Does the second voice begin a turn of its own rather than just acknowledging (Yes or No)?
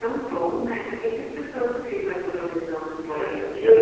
Yes